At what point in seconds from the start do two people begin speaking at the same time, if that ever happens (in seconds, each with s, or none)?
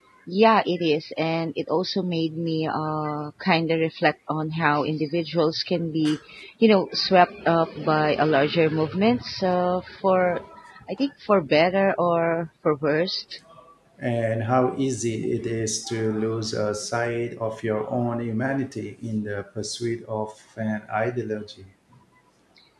none